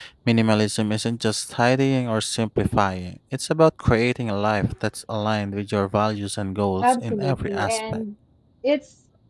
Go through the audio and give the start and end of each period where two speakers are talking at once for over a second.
6.8-8.0

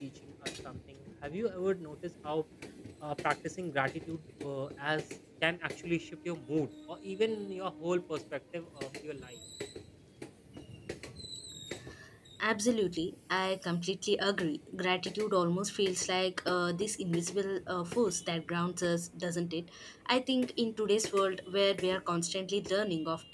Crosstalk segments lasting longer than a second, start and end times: none

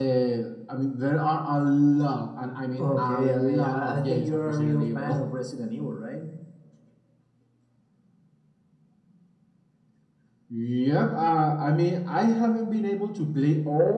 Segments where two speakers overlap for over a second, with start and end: 2.8-5.2

